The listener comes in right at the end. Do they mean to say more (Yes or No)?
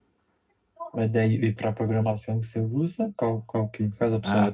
Yes